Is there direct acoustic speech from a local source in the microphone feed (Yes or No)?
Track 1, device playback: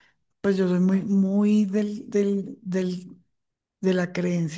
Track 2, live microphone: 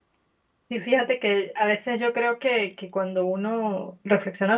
Yes